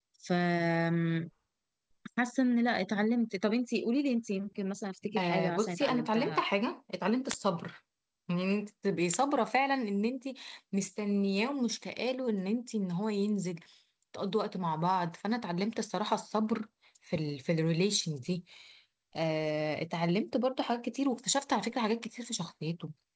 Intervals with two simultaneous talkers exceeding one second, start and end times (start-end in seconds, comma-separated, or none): 5.2-6.4